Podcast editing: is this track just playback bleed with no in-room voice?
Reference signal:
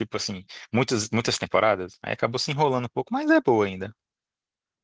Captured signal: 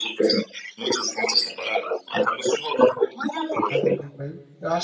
No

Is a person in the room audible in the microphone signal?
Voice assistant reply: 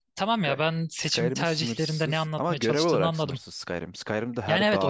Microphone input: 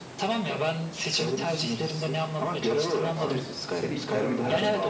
Yes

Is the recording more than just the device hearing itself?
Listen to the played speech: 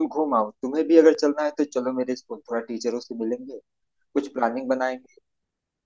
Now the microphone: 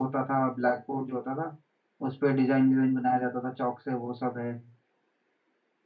Yes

